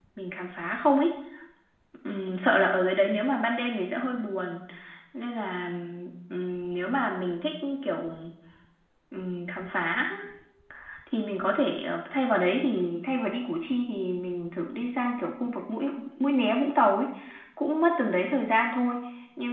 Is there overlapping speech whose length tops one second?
No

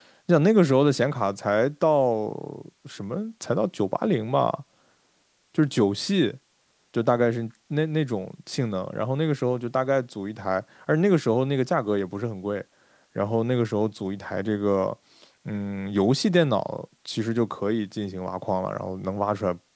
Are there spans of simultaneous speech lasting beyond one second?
No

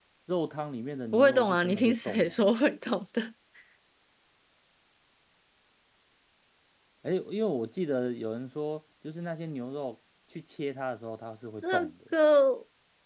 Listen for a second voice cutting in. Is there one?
Yes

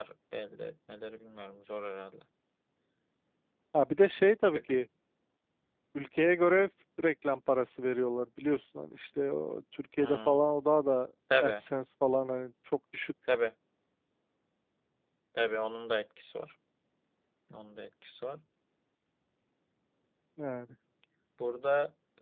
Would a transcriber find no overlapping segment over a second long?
Yes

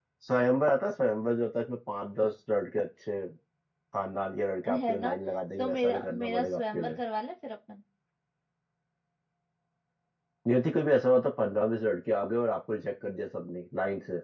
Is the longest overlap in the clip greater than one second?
Yes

